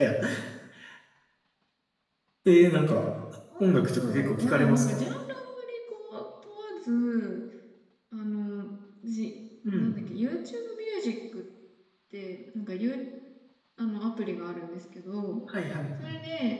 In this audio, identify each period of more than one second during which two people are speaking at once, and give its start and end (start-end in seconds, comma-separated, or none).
3.6-5.0